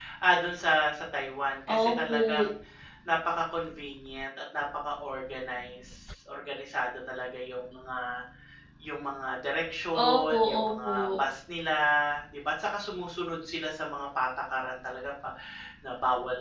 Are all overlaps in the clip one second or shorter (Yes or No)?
No